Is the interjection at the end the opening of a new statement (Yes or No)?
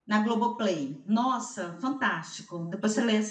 No